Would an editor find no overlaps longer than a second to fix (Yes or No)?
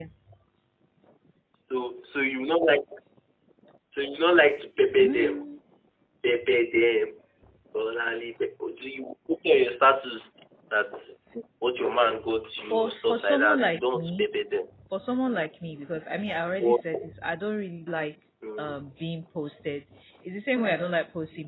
No